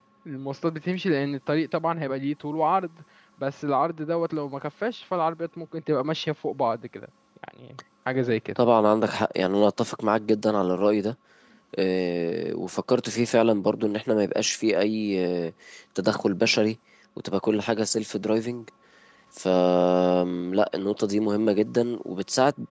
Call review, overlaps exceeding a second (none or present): none